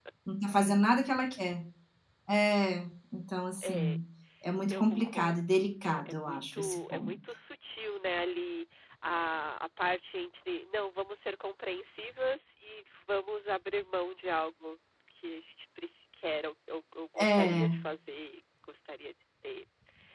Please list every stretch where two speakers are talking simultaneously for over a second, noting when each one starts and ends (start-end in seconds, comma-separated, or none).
4.7-7.1